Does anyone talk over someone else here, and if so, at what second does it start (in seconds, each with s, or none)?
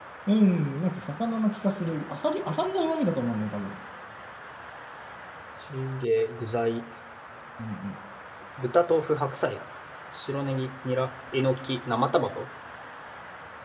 none